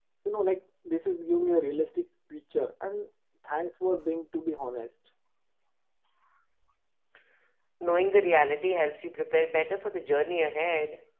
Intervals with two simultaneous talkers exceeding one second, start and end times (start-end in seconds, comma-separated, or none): none